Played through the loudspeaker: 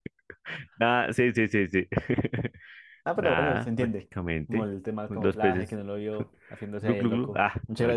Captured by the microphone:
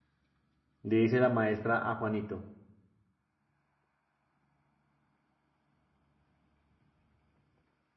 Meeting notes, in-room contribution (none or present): present